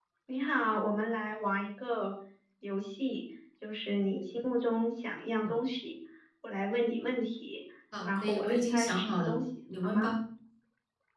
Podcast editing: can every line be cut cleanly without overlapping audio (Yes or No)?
No